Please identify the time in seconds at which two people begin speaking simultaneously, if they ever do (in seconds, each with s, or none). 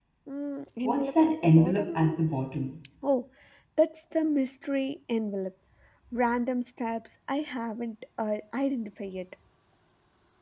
0.8 s